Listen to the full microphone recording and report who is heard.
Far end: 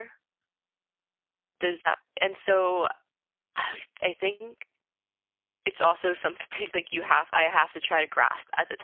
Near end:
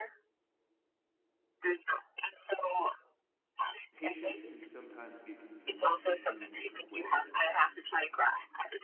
both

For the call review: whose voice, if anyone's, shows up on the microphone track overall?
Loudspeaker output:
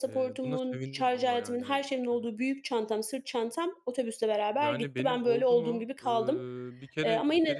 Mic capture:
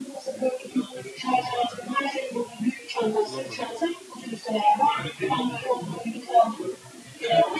both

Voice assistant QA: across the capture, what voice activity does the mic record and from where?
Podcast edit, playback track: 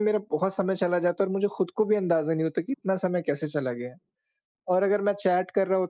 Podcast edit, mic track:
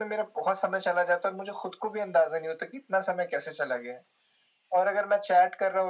echo only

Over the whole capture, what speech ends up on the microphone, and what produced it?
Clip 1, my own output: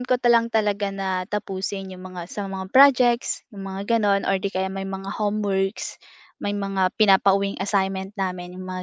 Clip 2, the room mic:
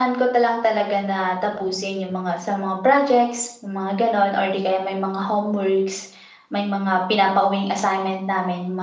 echo only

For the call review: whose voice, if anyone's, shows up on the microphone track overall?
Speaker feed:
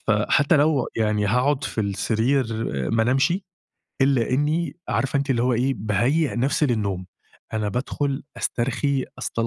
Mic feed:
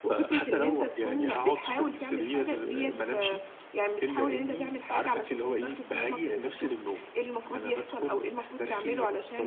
both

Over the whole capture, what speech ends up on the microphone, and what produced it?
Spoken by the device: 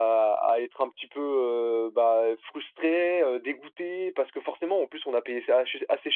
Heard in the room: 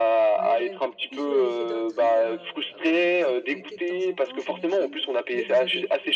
both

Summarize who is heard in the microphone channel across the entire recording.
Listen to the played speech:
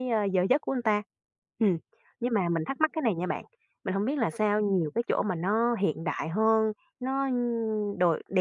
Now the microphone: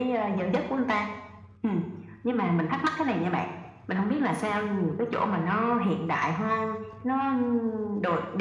echo only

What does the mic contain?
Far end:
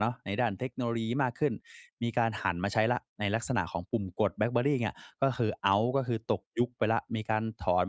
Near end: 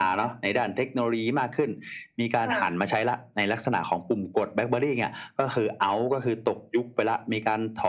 both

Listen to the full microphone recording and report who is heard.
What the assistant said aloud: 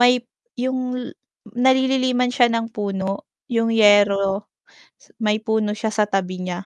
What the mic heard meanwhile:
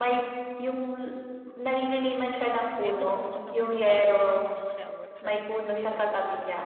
both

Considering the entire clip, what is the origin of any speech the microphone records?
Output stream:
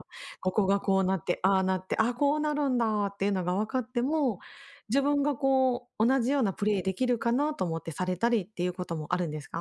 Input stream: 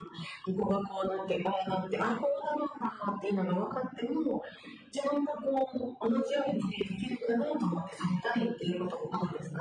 echo only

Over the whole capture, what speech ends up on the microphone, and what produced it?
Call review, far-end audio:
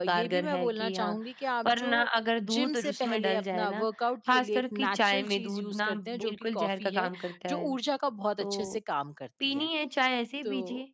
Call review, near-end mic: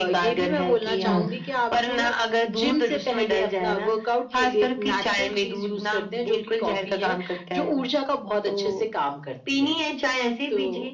both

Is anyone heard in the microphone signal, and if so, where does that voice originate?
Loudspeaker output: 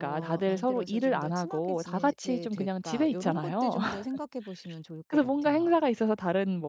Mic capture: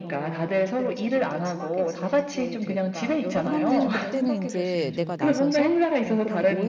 both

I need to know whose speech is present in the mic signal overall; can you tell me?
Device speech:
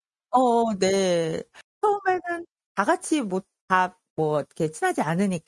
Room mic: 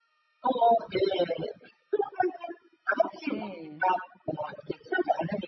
both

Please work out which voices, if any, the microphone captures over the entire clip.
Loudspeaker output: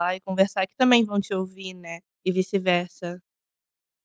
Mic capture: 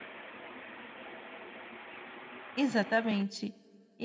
user only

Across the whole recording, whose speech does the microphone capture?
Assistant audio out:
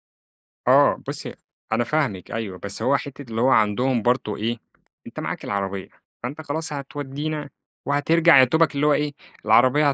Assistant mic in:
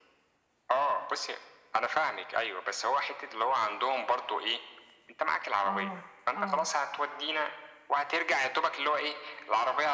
both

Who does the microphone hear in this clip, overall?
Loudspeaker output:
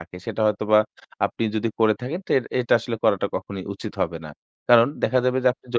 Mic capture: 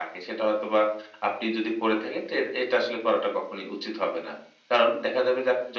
echo only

